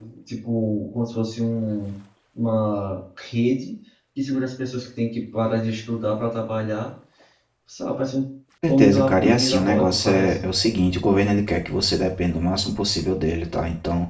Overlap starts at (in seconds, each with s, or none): 8.7 s